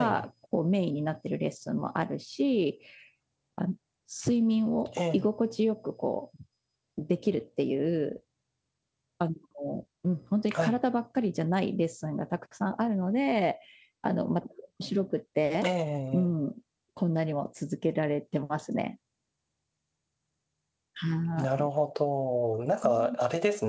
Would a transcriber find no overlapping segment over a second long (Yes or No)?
Yes